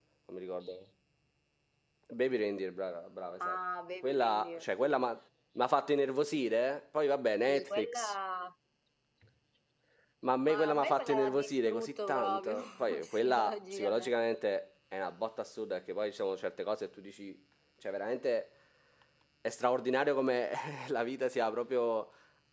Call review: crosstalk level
present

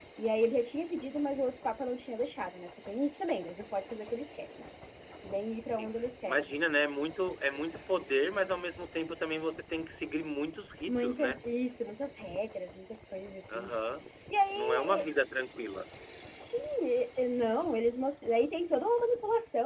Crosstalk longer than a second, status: none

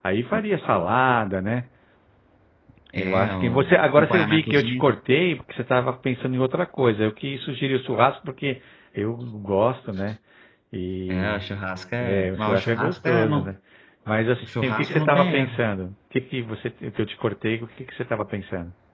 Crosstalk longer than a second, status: present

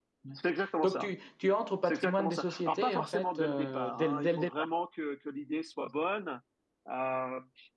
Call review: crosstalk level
present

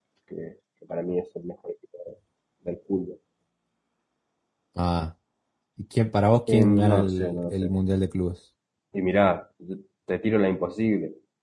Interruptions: present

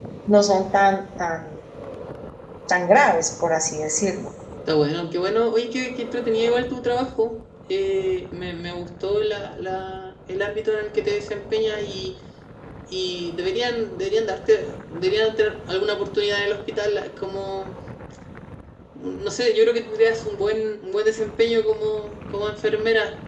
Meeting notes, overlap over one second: none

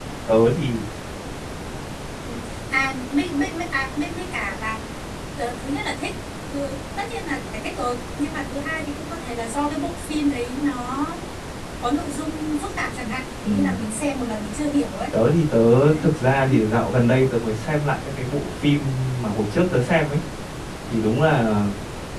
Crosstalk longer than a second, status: none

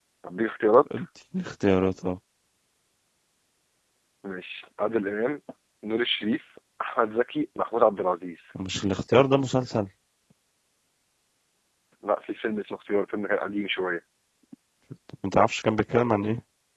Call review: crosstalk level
none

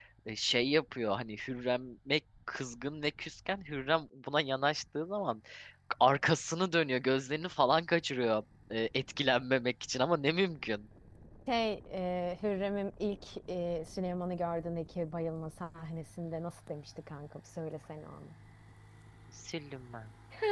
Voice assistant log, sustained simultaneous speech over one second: none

